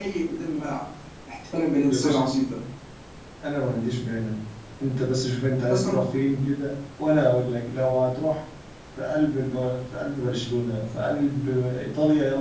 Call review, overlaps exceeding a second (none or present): none